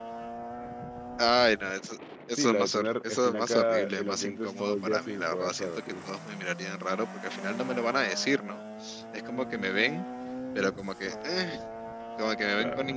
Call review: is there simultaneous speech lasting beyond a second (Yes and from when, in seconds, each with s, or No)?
Yes, from 2.4 s